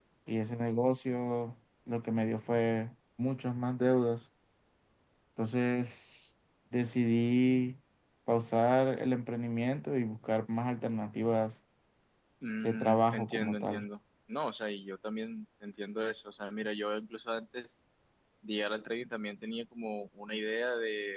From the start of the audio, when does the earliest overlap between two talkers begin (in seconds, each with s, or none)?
12.6 s